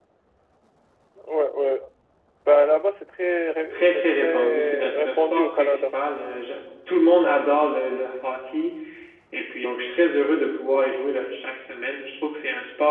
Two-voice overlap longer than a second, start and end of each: 3.7-5.8

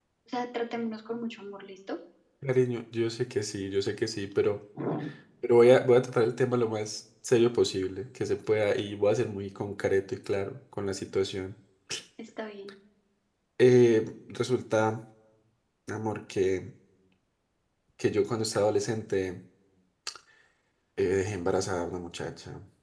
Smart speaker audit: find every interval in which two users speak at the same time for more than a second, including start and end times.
none

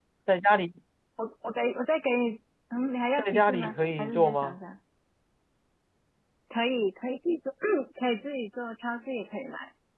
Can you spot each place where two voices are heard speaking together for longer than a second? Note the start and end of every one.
3.2-4.6

